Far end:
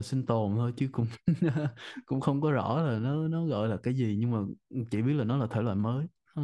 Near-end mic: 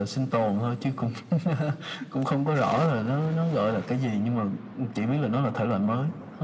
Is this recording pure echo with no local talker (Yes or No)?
Yes